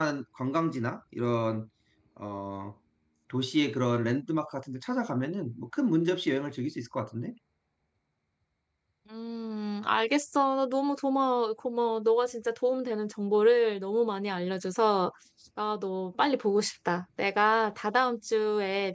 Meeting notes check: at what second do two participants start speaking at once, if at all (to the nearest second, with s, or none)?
none